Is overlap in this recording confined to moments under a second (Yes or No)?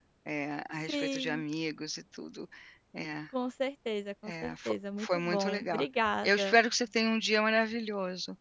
No